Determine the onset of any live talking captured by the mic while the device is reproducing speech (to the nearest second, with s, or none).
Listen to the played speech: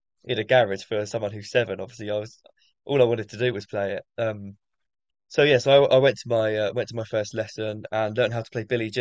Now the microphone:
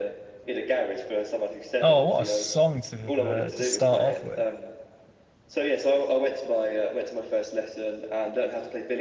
2 s